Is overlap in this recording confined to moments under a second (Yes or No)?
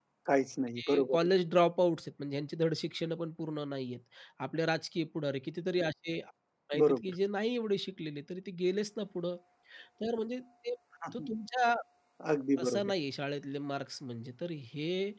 Yes